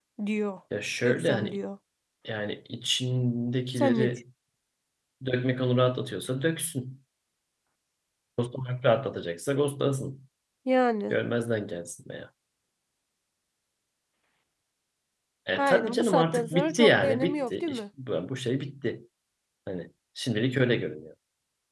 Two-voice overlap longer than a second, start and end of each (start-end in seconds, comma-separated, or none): 15.6-17.8